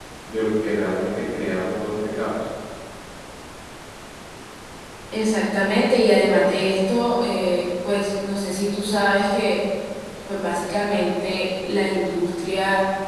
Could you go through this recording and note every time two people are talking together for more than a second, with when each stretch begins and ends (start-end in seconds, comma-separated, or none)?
none